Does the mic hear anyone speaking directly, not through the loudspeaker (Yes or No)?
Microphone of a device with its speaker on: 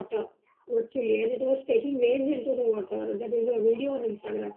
No